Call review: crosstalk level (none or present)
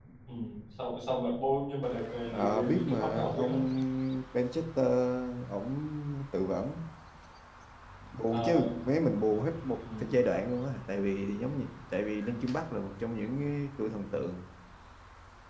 present